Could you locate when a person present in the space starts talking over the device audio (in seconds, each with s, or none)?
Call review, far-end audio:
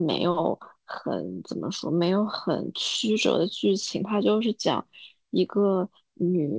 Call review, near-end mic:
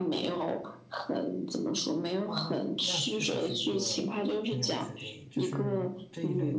2.2 s